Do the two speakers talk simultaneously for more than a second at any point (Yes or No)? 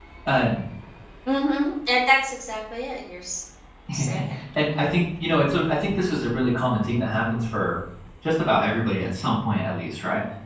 No